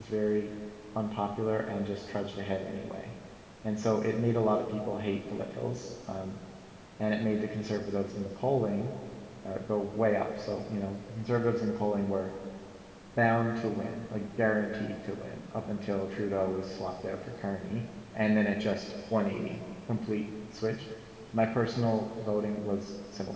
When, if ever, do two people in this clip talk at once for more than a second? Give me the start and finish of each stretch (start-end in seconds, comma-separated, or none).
none